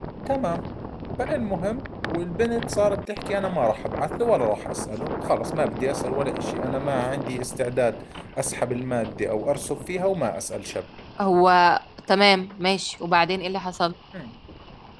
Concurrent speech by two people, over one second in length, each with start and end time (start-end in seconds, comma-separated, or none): none